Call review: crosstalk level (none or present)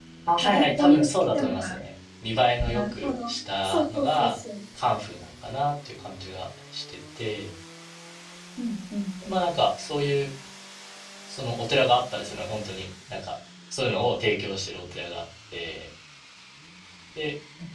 present